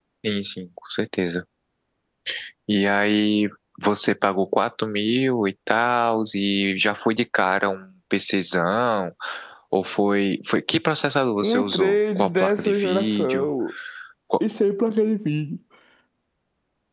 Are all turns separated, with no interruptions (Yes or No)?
No